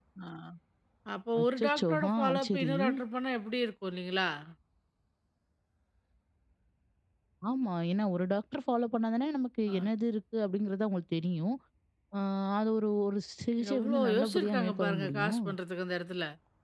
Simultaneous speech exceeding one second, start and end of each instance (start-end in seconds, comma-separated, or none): 1.4-2.7, 13.7-15.4